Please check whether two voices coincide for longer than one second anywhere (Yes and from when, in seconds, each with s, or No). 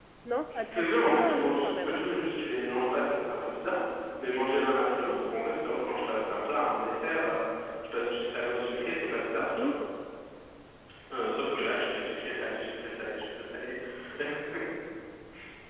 Yes, from 0.5 s